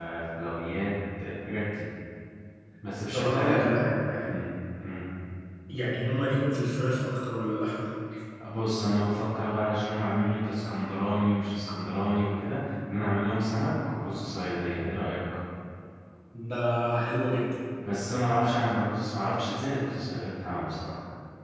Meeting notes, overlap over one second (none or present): none